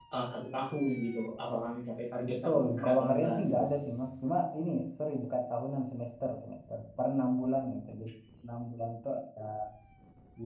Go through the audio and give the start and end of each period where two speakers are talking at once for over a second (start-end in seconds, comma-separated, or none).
2.3-3.5